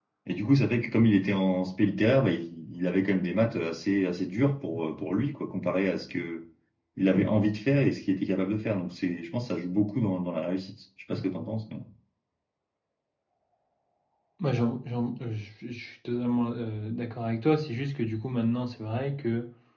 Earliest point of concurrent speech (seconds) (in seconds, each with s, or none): none